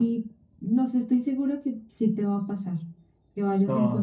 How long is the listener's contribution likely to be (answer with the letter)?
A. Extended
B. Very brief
A